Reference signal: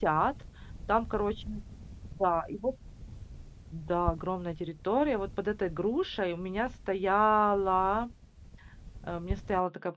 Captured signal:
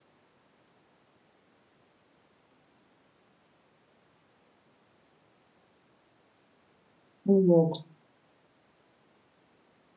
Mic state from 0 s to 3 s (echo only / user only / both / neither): neither